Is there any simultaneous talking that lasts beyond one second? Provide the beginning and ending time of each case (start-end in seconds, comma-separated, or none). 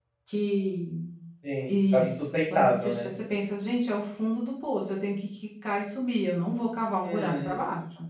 1.7-3.1